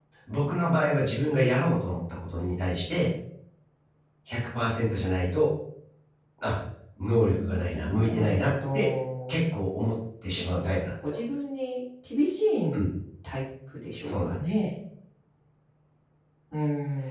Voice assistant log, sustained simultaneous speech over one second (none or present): present